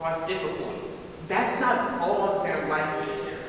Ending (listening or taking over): taking over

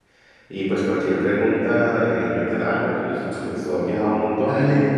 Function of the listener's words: taking over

